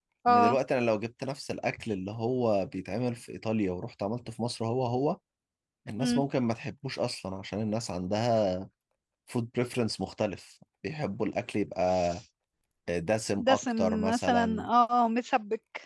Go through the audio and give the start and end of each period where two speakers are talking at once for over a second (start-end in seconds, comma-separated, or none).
13.4-14.7